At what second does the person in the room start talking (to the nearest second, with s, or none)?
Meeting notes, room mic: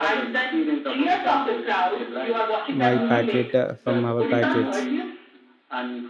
3 s